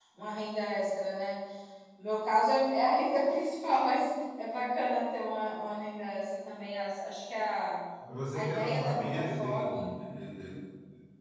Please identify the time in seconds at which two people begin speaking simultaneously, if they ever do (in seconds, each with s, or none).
8.3 s